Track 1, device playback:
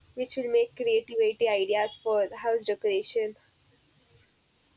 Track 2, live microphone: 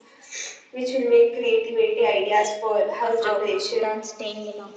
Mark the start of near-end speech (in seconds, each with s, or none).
3.0 s